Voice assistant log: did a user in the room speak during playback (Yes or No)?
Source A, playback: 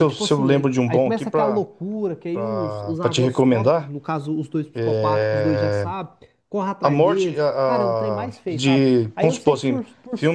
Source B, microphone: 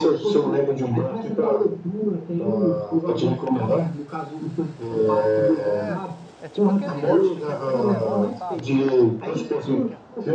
Yes